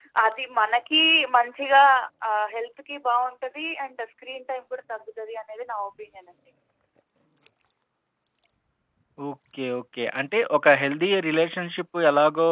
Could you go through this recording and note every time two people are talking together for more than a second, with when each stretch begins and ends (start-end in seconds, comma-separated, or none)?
none